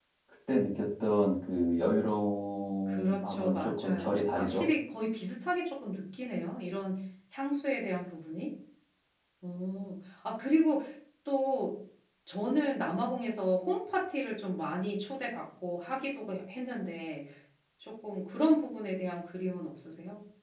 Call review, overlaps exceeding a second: present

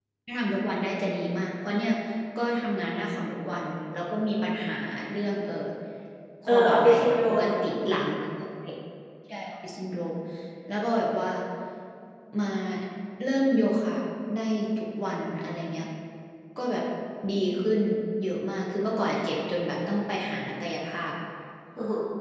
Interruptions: present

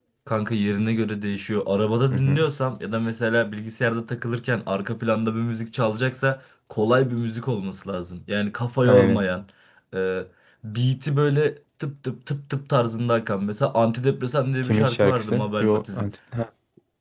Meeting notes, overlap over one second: present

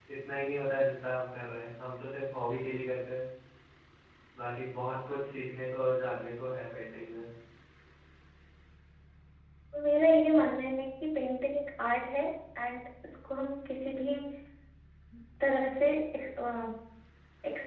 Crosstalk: none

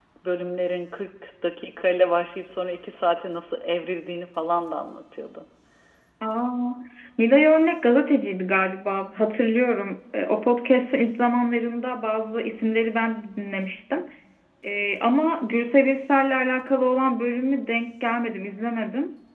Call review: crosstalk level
none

